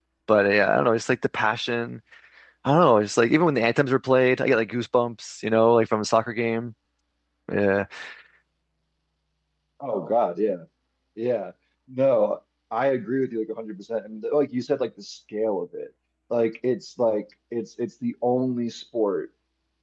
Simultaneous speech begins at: none

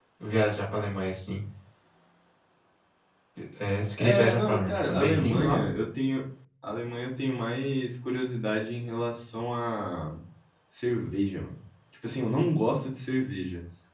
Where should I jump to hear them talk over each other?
4.0 s

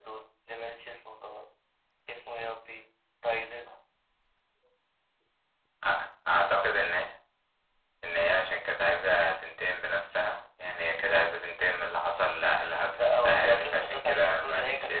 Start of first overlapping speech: 12.9 s

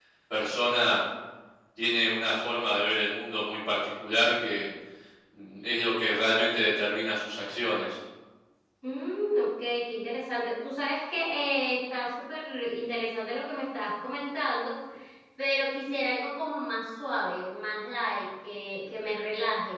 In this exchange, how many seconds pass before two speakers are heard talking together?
none

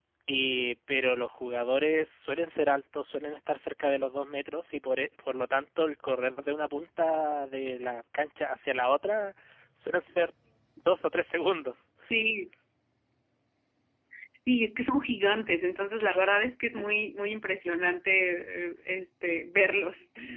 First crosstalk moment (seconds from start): none

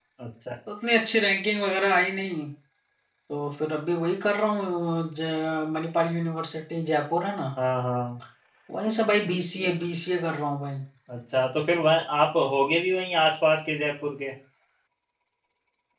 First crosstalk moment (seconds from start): none

